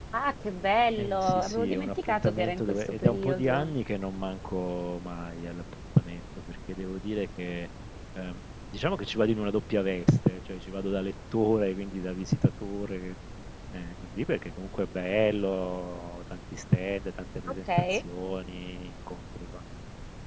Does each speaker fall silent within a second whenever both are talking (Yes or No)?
No